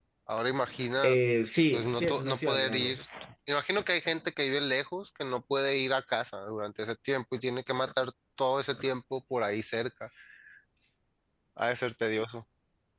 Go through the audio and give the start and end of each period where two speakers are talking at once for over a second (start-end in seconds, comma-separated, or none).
1.7-3.0